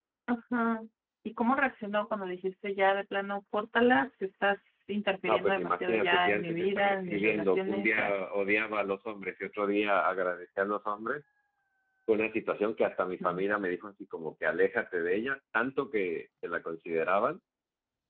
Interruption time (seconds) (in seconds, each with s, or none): 5.2 s